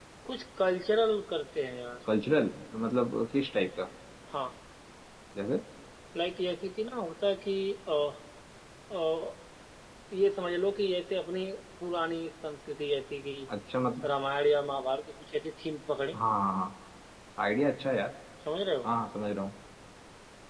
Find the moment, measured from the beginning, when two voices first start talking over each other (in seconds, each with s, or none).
none